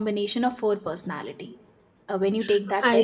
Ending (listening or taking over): listening